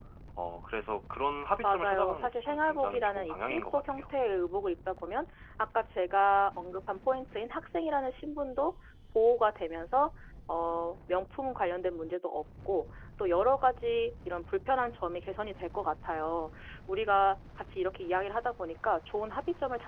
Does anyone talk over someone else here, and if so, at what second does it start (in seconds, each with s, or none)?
1.6 s